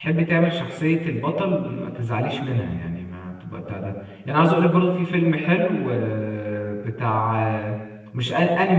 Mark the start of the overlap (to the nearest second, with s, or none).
none